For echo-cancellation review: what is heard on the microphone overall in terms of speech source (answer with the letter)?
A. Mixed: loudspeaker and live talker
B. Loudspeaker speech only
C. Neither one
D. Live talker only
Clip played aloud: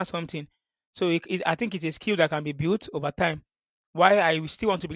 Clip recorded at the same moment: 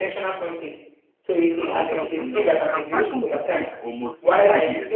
A